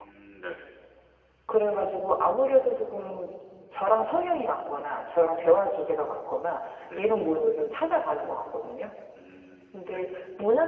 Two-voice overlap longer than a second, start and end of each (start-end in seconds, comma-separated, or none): none